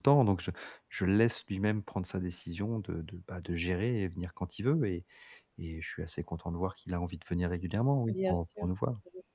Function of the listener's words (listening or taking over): taking over